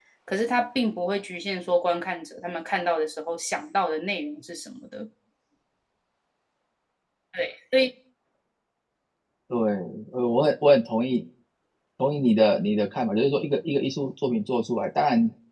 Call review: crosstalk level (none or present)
none